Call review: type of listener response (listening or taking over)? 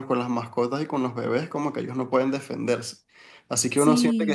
listening